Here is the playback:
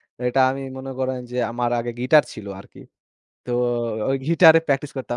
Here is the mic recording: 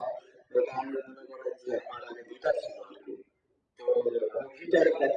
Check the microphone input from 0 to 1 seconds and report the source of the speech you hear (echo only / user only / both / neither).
echo only